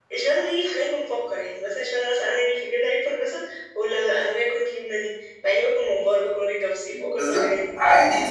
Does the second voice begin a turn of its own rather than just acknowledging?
Yes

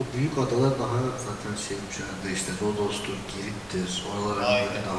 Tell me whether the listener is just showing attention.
No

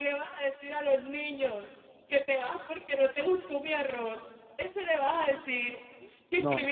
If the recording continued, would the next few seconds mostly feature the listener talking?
No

